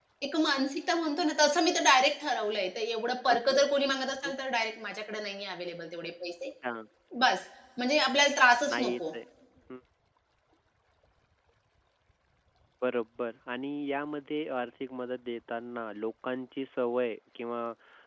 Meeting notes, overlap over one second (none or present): none